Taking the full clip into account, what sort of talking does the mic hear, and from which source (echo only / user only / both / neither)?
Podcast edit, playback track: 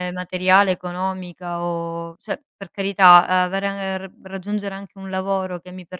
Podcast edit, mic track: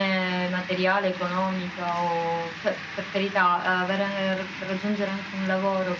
echo only